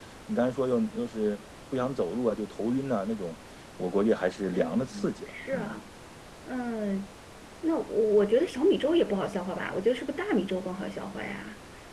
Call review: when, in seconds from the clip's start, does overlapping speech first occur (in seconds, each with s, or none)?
4.5 s